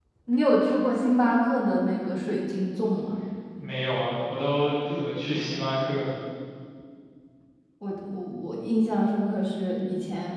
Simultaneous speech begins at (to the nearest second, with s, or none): none